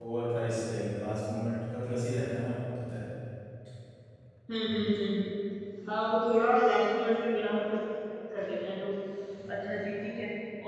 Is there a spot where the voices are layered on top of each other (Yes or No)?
No